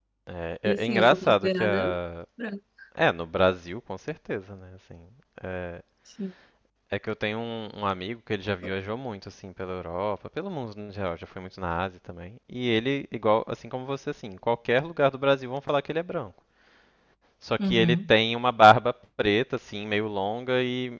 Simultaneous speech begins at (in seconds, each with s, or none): 0.6 s